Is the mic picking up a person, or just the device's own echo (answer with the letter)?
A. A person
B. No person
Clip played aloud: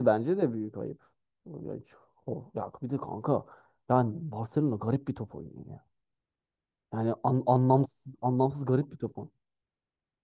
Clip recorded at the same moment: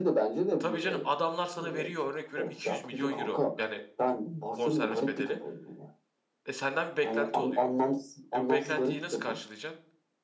A